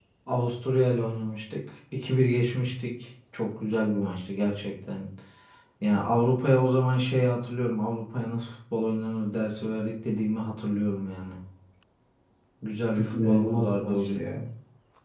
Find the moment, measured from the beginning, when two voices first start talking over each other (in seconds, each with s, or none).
13.0 s